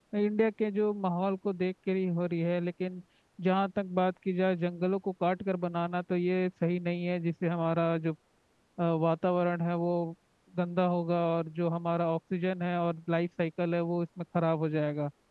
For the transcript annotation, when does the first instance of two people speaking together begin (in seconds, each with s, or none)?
none